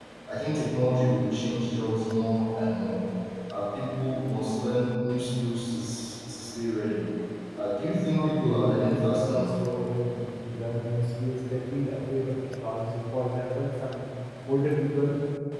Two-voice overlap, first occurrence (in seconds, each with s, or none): 8.1 s